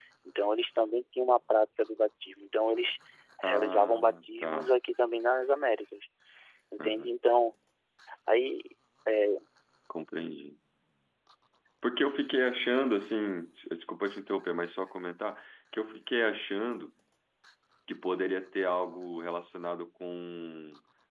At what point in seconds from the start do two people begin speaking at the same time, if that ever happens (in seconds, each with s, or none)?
3.4 s